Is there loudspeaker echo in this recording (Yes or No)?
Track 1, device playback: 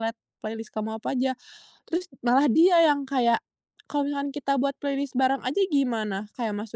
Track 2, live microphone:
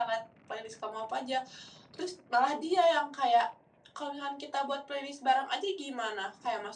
Yes